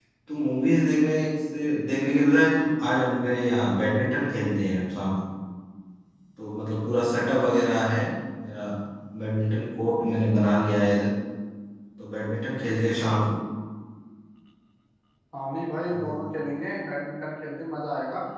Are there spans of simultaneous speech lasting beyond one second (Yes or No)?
No